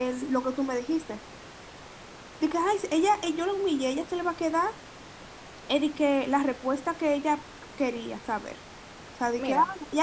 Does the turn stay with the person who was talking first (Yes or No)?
Yes